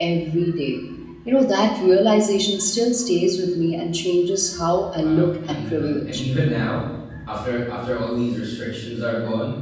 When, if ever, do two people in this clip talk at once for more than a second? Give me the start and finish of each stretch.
5.0-6.2

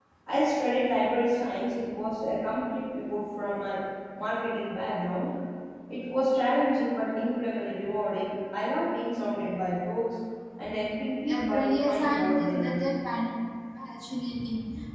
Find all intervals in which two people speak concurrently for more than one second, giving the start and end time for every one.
11.3-12.8

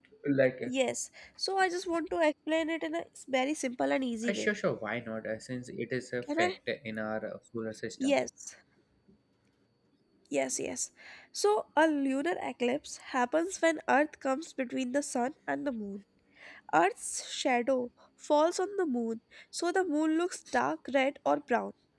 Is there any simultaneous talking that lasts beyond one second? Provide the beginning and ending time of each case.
none

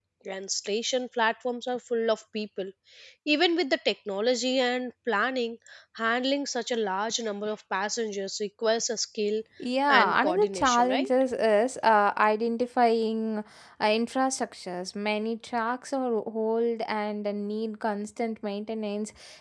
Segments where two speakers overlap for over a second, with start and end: 9.9-11.1

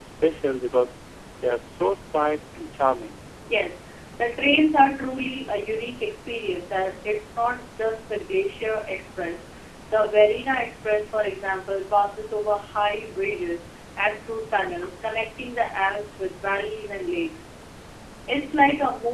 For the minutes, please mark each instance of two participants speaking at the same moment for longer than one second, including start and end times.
none

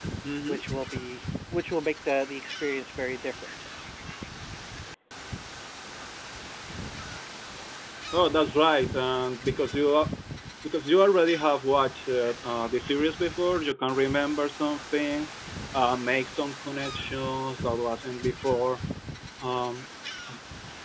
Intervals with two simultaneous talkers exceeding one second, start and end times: none

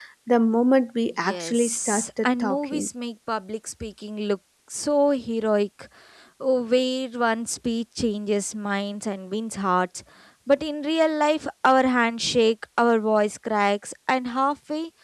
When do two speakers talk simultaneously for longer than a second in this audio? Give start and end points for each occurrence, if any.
1.2-2.9

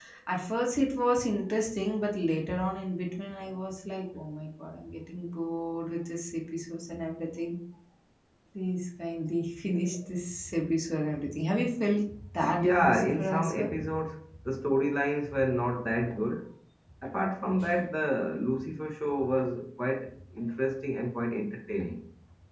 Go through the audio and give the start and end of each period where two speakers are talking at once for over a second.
12.4-13.7

